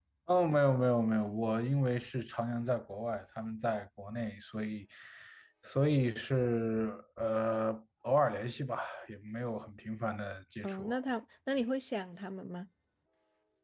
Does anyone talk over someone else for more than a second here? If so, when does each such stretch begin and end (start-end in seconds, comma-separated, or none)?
none